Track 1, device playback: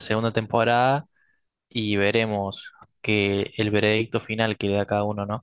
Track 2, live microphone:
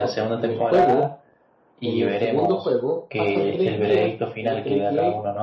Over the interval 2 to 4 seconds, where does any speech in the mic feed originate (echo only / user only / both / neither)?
both